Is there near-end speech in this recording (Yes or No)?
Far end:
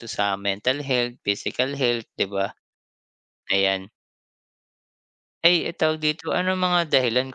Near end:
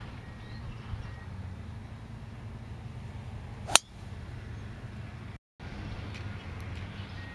No